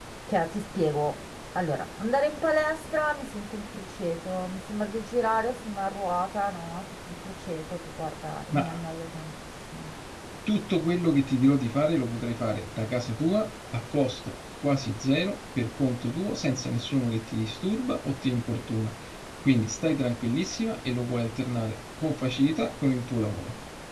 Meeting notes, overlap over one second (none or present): none